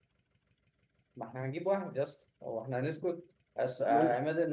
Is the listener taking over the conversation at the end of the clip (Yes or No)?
No